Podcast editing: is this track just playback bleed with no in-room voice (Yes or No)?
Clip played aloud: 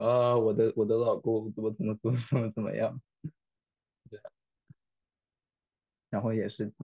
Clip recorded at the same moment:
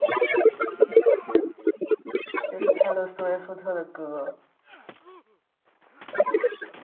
No